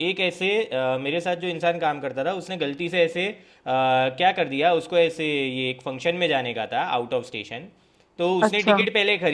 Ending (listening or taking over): listening